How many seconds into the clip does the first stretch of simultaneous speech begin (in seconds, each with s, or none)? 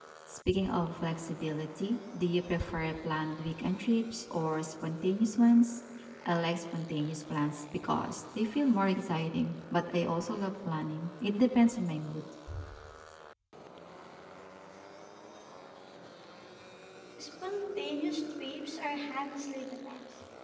none